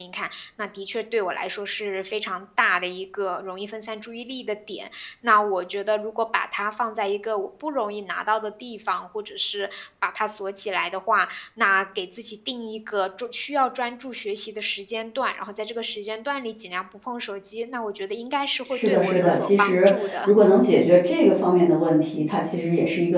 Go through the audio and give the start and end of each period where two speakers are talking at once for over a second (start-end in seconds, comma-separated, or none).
18.7-20.2